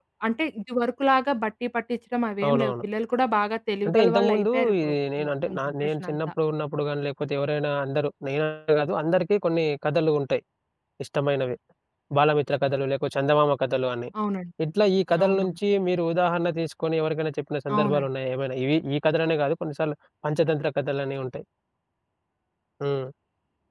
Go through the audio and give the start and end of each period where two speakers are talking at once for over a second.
3.9-6.2

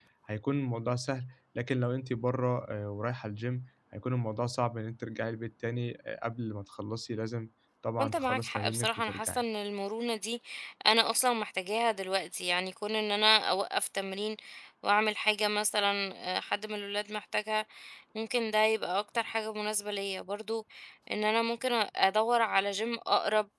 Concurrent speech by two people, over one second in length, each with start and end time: 8.0-9.4

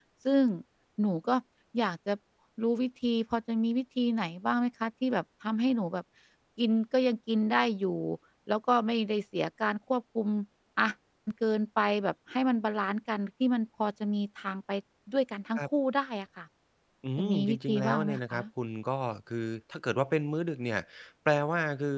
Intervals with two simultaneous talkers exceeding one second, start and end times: 17.2-18.4

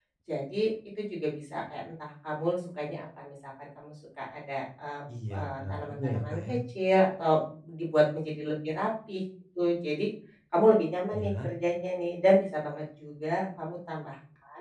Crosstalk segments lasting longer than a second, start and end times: 5.3-6.6

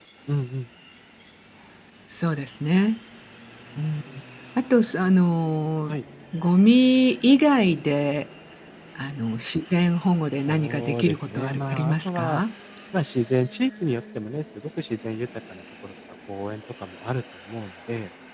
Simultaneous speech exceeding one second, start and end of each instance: 10.5-12.4

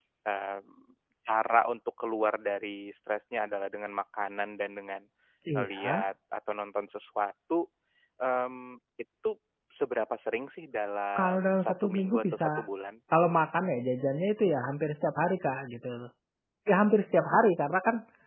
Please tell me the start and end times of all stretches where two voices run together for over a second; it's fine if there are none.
11.2-12.6

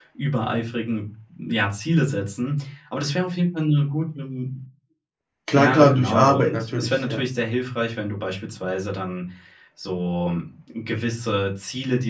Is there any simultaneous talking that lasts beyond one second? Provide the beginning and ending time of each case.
5.6-7.2

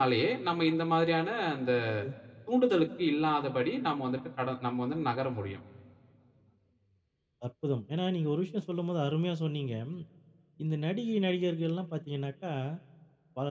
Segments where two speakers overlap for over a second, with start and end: none

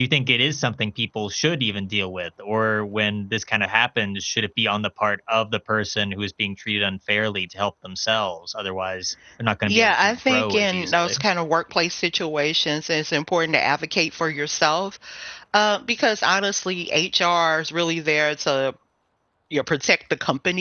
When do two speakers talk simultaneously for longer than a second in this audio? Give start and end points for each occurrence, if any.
9.7-11.2

